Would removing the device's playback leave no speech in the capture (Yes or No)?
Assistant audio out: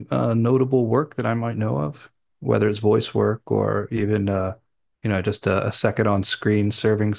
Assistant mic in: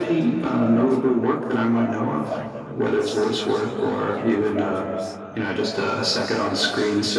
No